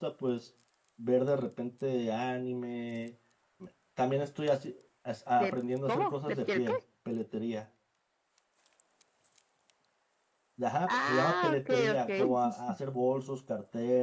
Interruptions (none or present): present